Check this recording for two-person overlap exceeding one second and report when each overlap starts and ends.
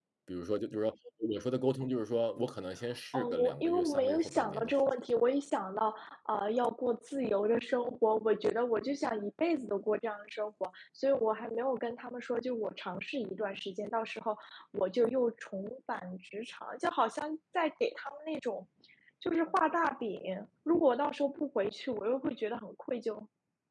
3.1-4.8

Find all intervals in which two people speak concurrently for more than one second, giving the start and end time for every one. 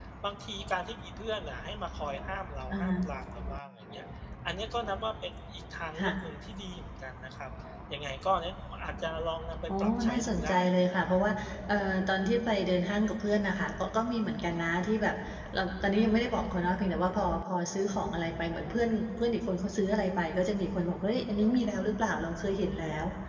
9.7-11.2

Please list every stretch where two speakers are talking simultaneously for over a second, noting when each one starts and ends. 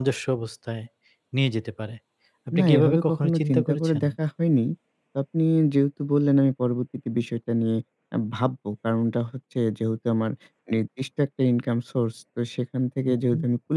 2.6-4.0

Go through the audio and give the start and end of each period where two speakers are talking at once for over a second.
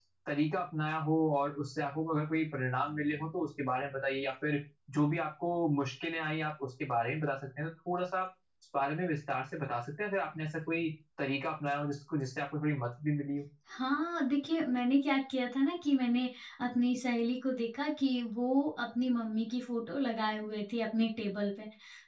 none

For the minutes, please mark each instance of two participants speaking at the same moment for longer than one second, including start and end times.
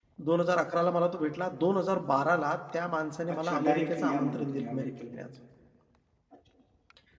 3.3-5.2

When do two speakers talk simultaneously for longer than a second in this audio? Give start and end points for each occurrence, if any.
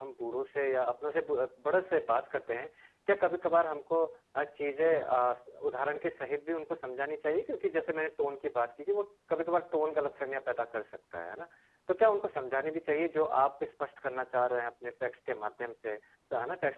none

